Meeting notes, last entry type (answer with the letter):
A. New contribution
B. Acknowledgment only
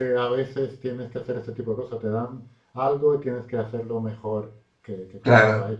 A